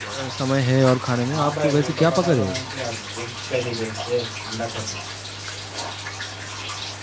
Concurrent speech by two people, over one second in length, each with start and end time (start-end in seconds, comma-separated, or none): 1.3-2.5